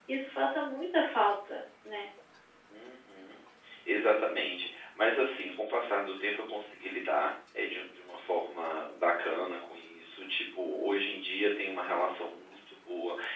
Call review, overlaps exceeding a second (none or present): none